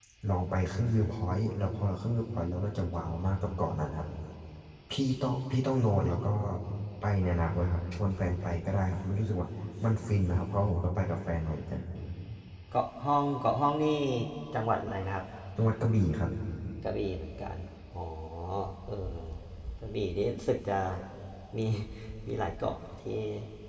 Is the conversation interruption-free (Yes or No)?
Yes